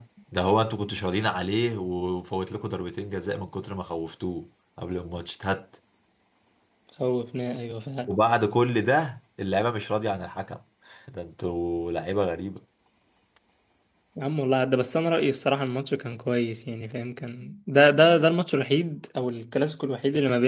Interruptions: none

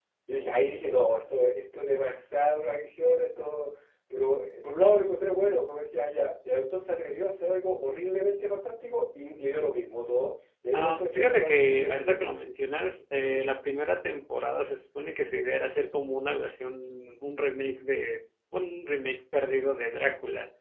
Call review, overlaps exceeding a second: present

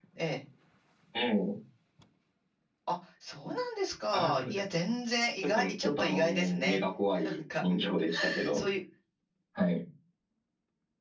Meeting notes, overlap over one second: present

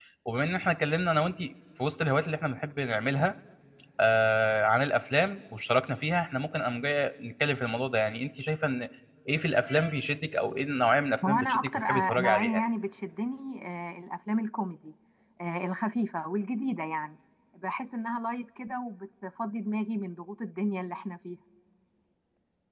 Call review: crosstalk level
present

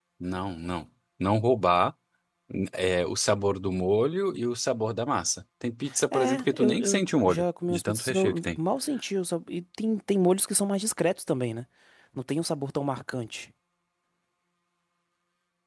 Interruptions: present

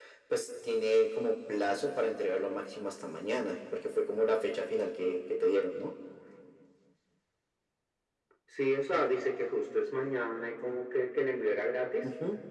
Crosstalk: none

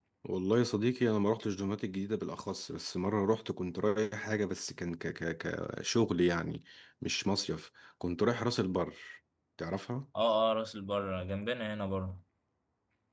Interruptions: none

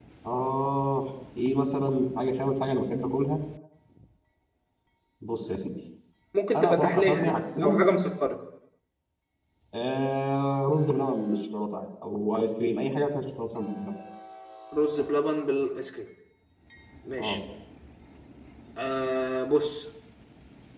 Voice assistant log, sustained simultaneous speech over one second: present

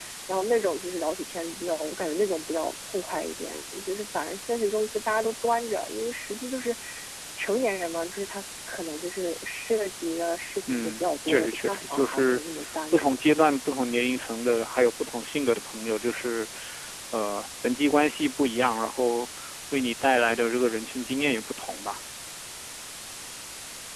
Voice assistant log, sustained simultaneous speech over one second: present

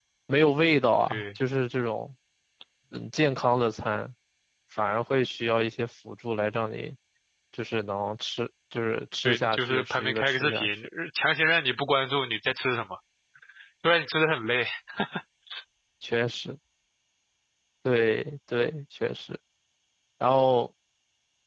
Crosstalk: present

